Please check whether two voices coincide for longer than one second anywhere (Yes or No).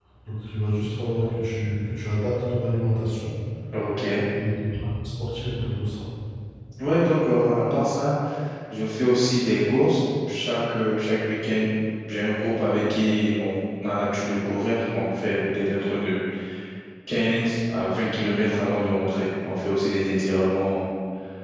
No